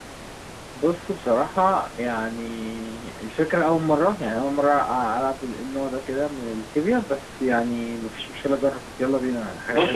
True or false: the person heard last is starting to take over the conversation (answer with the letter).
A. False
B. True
B